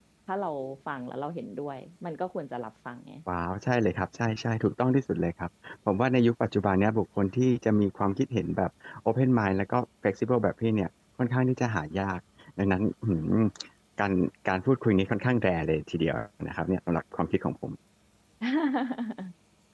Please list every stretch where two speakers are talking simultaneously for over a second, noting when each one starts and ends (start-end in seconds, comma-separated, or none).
none